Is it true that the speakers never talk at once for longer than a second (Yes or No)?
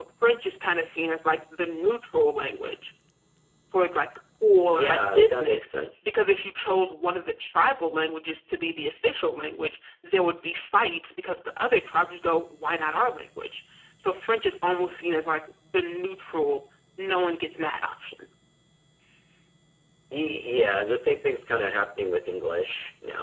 No